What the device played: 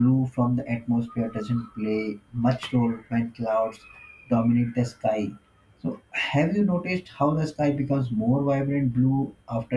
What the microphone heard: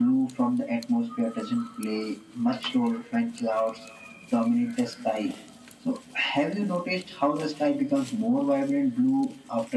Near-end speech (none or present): none